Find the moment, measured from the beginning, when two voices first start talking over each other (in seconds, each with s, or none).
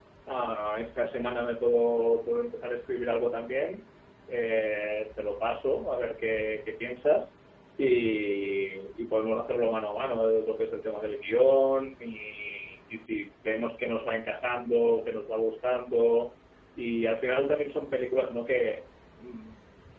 none